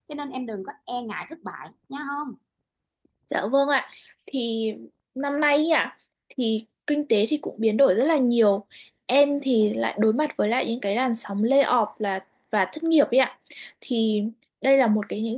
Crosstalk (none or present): none